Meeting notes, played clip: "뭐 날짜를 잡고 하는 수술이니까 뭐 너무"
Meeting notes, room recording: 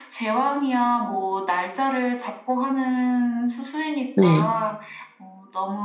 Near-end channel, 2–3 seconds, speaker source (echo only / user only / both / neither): echo only